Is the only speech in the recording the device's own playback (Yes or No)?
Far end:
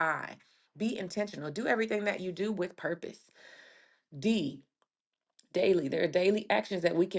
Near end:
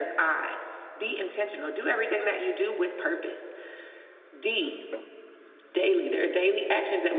Yes